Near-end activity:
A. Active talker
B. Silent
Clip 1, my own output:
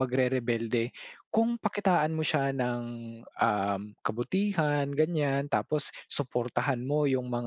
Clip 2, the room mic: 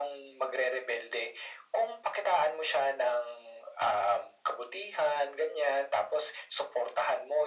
B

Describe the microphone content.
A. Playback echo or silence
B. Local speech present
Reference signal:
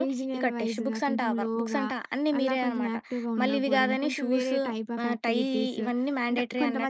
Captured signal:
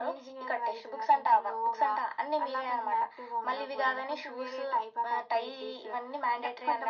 A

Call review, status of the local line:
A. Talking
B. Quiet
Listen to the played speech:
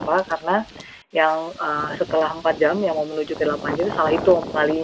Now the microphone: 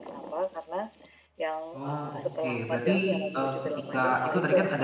A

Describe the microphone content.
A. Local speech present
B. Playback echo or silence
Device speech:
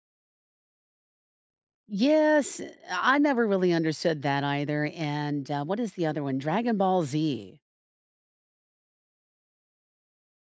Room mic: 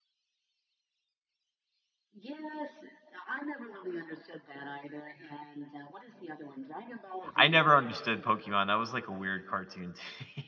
A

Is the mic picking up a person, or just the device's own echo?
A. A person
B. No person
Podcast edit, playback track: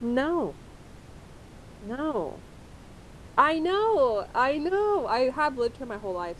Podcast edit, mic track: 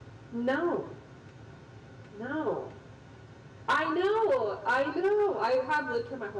B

